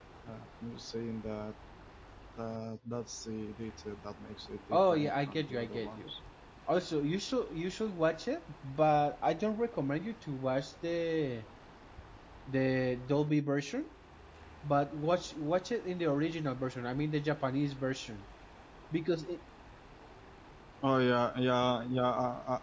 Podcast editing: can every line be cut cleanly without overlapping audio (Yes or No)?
No